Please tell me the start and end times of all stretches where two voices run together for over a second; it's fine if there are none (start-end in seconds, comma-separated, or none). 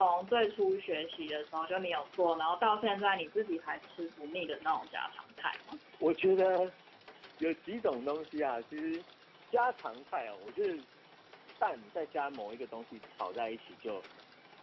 none